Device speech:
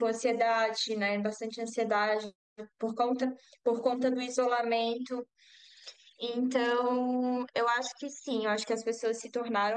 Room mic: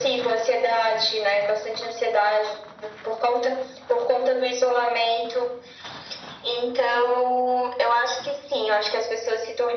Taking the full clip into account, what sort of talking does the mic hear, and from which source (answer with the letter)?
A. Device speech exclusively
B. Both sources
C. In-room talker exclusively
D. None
A